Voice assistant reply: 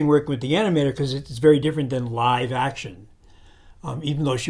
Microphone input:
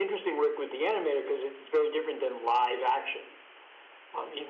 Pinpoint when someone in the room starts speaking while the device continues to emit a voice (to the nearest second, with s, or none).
none